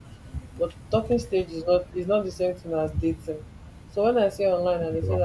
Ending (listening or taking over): listening